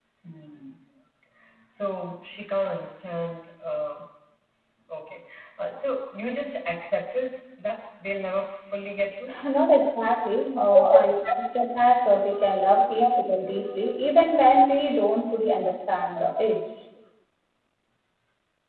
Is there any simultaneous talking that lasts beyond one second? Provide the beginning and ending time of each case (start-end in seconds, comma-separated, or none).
none